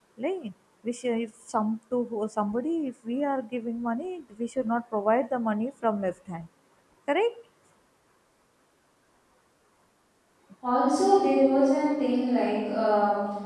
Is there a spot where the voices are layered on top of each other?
No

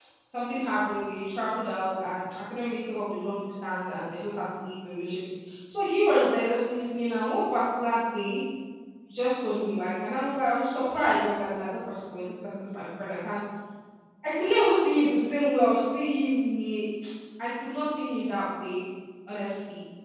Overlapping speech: No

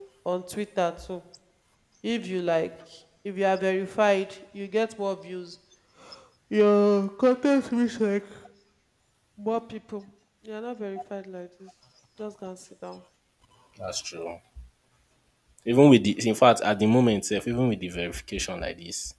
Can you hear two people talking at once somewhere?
No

